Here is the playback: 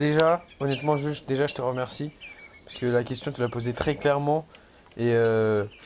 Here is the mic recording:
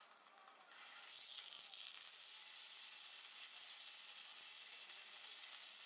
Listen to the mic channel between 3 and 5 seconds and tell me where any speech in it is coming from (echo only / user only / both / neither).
neither